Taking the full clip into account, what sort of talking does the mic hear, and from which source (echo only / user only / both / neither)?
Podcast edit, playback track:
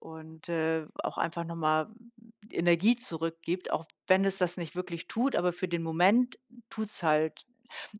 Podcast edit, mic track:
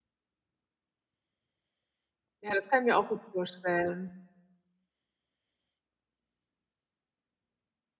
user only